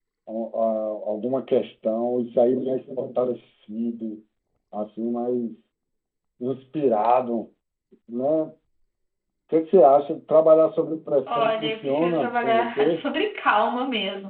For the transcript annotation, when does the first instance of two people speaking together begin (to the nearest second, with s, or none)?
11 s